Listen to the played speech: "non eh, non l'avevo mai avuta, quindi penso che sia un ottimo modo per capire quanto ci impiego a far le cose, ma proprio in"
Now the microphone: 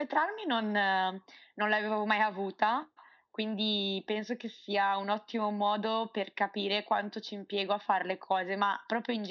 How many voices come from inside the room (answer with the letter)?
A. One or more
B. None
B